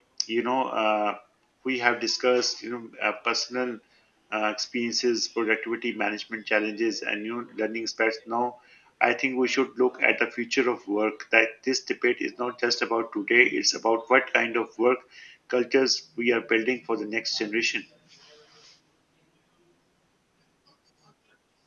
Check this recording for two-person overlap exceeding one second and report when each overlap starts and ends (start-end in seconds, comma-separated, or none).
none